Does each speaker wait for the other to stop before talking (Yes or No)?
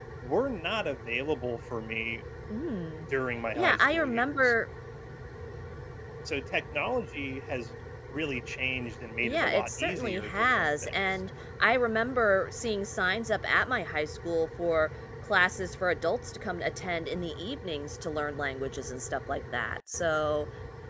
No